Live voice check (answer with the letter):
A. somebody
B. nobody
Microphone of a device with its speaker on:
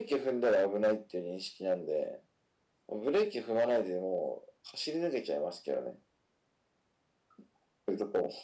B